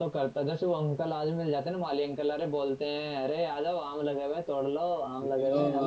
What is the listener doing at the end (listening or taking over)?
listening